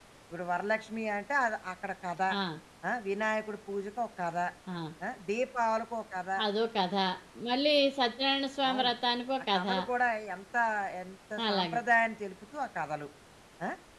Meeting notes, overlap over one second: none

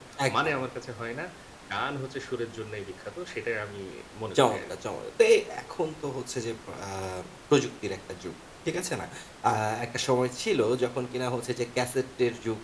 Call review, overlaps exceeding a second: none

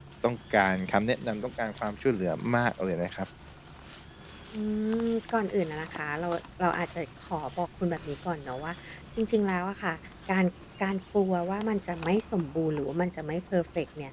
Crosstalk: none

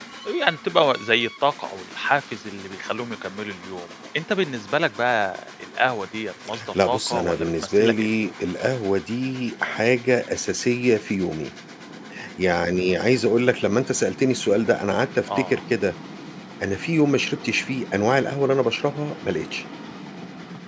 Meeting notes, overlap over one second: present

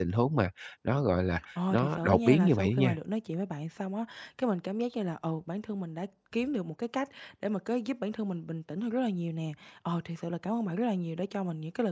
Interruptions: present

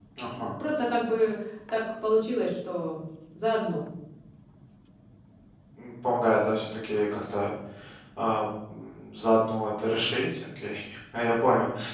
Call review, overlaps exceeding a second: none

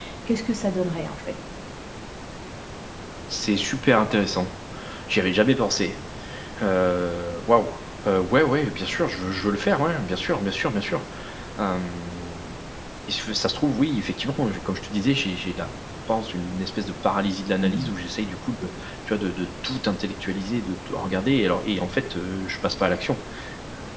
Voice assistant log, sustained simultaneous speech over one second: none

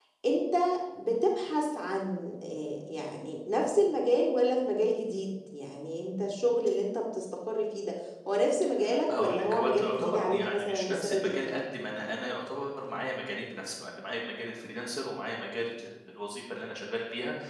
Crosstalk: present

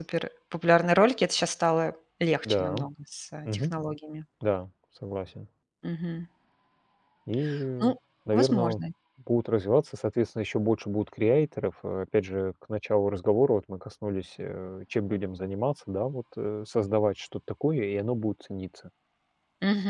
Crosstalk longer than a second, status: none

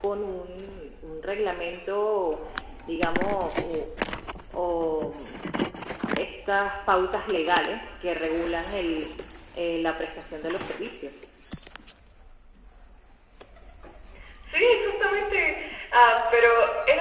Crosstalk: none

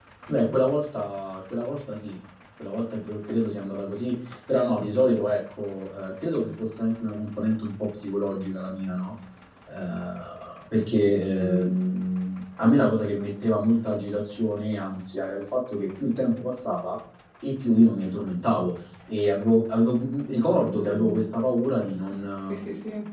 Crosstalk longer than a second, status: none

